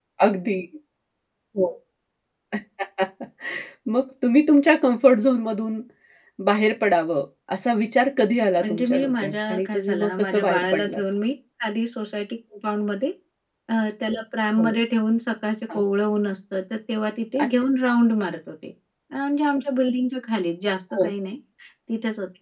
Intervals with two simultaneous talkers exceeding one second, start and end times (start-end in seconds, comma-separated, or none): 8.6-11.0